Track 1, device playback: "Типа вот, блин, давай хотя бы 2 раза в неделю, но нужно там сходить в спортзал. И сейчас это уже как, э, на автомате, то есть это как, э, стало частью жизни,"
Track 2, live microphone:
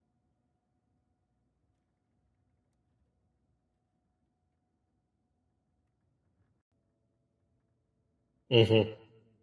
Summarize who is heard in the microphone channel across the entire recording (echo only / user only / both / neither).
user only